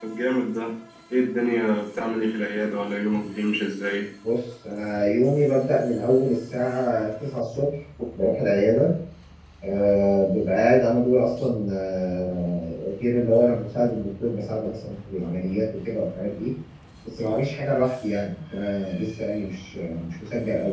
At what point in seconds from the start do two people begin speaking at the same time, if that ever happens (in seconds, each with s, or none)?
none